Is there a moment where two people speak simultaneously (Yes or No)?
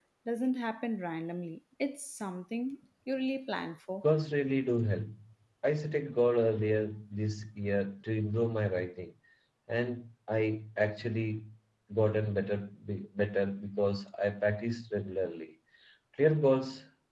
No